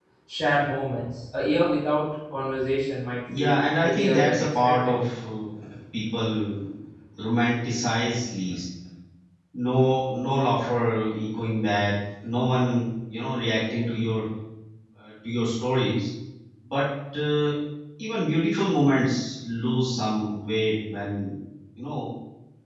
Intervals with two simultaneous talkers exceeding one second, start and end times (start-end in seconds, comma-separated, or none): 3.4-4.9